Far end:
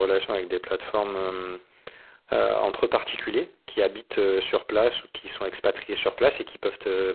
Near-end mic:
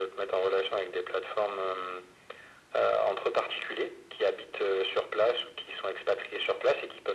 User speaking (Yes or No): No